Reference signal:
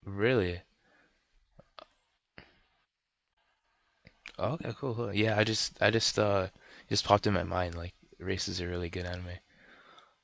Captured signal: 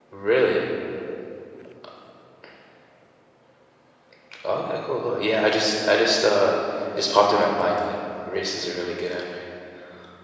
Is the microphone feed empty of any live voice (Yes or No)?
Yes